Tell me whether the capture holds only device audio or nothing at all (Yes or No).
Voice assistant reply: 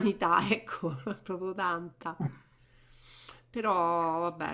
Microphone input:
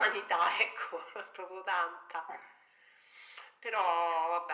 Yes